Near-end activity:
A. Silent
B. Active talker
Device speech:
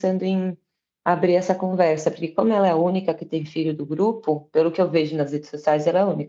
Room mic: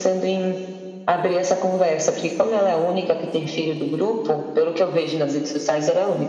A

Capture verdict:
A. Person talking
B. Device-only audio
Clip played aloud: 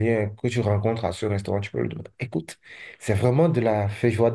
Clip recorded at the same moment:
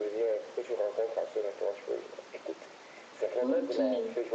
A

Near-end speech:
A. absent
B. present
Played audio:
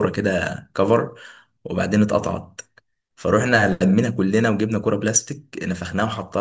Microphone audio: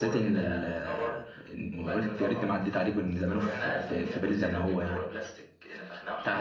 B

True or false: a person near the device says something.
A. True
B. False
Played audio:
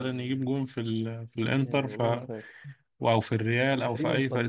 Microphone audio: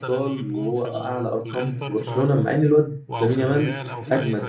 A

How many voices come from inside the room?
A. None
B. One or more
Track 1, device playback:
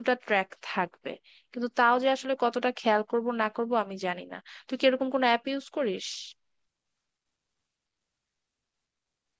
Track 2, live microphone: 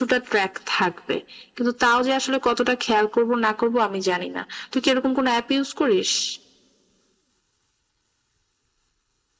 A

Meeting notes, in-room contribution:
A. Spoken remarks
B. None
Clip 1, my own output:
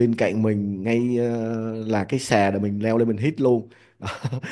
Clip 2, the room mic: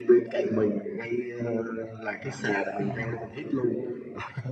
A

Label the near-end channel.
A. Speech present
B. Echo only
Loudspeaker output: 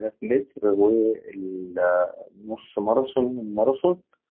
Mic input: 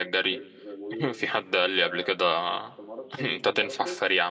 A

